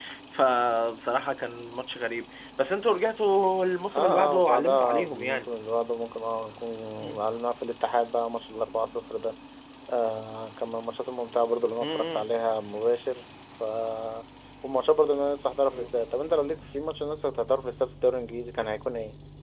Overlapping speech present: Yes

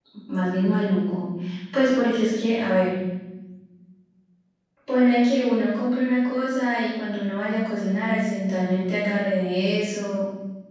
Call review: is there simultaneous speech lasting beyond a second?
No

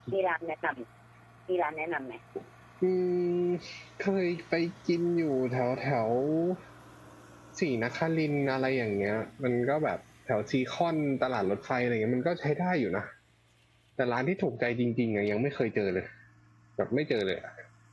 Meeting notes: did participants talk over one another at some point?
No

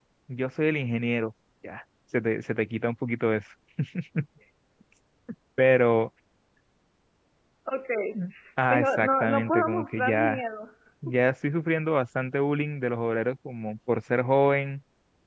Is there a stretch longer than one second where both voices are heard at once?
Yes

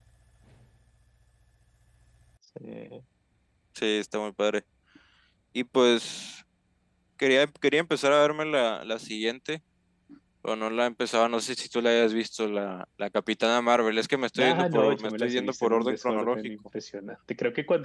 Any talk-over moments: Yes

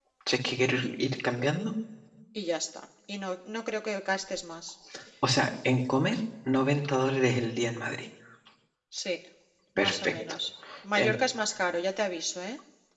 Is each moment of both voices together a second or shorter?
Yes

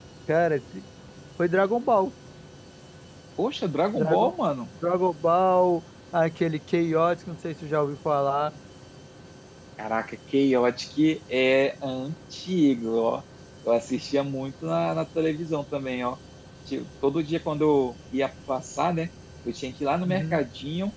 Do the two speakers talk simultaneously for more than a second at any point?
No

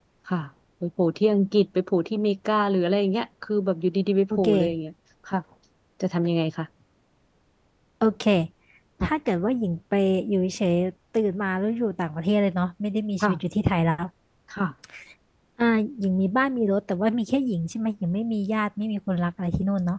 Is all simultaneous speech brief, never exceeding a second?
Yes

